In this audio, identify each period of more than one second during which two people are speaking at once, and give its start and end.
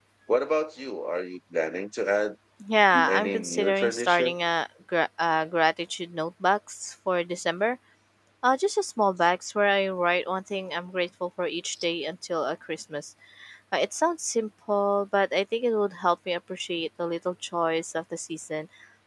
3.0-4.3

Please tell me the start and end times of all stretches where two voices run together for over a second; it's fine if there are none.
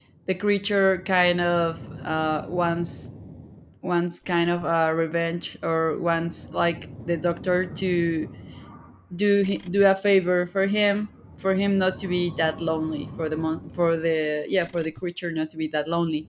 none

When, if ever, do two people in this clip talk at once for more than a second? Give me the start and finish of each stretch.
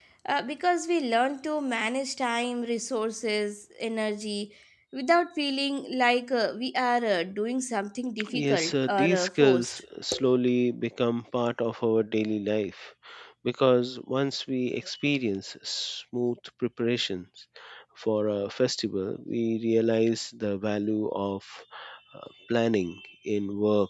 8.3-9.8

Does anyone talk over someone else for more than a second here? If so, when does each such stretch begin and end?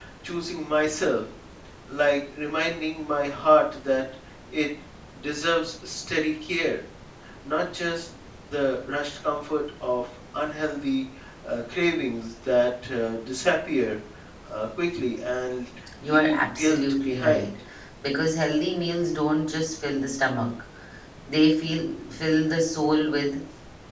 16.0-17.5

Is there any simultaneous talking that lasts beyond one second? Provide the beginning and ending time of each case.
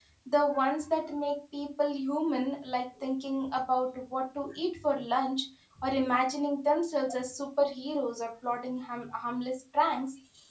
none

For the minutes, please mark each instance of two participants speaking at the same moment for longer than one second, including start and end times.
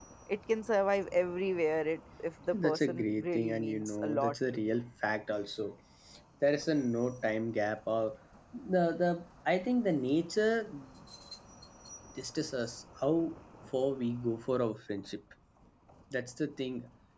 2.5-4.8

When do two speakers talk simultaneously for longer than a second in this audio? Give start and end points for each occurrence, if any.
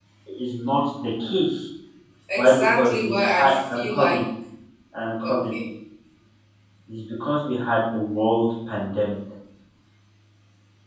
2.4-4.2

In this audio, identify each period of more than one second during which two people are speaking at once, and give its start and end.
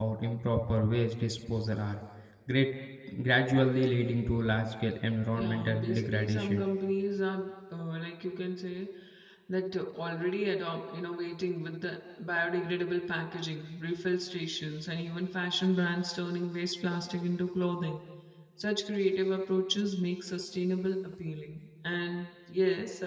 5.4-6.6

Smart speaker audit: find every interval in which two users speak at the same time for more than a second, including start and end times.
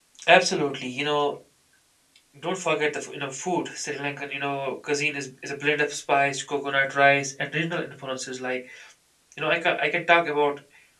none

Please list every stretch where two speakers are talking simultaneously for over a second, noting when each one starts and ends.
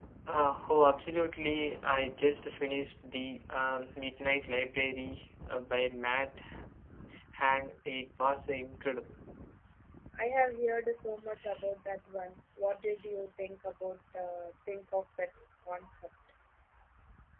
none

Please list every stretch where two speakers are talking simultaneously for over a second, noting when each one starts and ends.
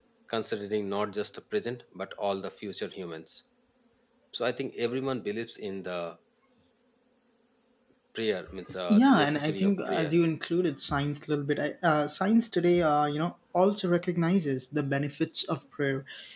8.9-10.2

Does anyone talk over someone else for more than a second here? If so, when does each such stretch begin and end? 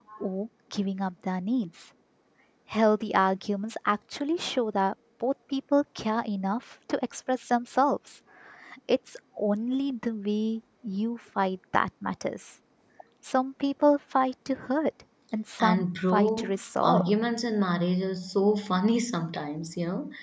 15.6-17.1

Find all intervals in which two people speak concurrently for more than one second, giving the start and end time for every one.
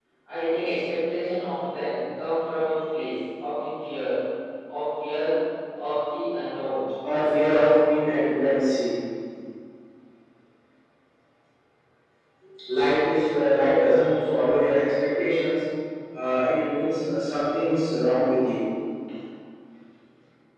none

